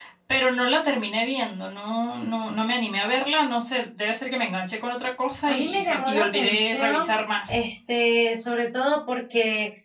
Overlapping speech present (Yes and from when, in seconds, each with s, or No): Yes, from 5.5 s